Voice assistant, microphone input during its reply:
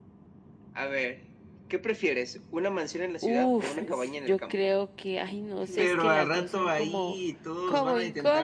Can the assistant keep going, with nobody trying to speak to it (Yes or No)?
No